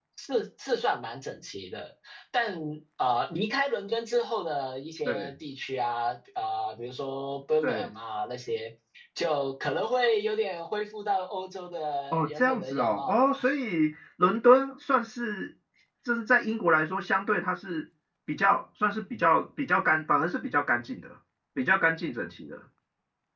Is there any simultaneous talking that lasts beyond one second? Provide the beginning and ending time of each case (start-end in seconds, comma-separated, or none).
12.1-13.3